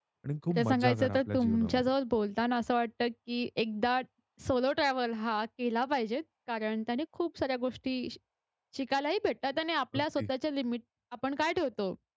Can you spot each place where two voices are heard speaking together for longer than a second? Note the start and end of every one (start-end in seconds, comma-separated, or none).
0.5-1.9